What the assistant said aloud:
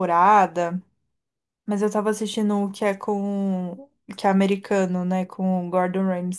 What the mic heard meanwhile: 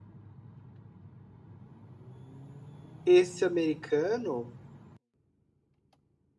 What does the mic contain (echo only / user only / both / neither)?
user only